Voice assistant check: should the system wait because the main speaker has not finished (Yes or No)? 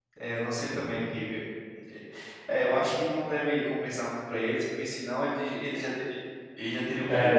No